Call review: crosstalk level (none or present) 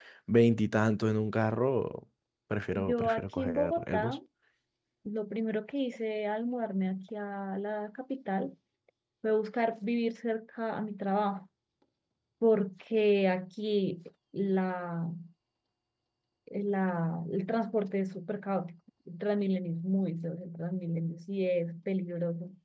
present